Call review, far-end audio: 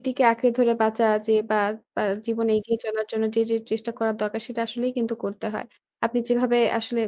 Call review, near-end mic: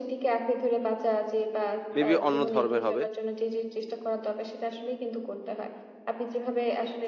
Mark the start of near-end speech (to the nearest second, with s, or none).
2 s